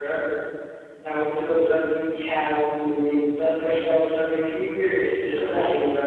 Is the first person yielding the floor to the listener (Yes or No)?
Yes